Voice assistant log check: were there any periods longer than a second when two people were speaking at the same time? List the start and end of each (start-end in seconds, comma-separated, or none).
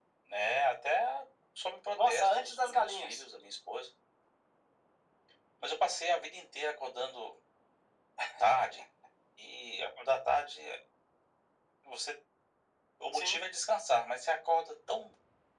1.9-3.2